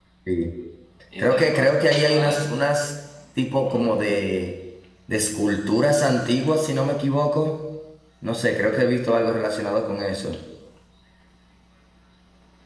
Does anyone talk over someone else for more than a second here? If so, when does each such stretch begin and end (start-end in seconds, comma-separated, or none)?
1.2-2.5